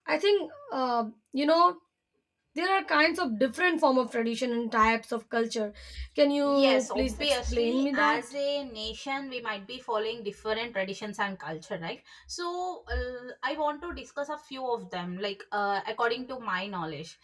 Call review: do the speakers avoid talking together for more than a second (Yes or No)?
No